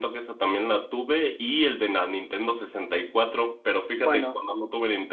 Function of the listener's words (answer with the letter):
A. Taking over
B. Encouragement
B